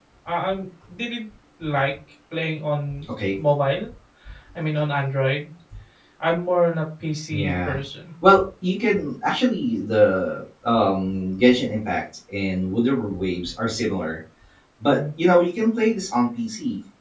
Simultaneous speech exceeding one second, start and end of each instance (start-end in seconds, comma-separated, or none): none